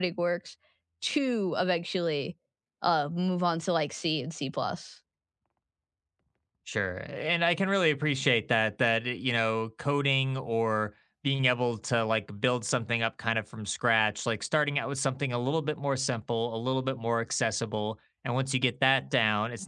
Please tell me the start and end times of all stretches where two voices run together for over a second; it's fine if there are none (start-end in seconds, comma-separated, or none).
none